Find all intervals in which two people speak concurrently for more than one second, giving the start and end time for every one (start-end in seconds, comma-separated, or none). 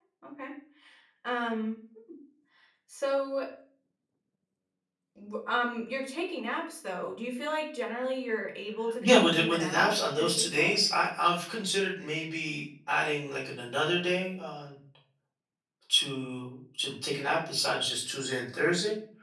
9.0-10.8